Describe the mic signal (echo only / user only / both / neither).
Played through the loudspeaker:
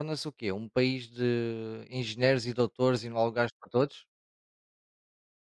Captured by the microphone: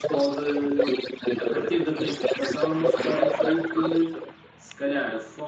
both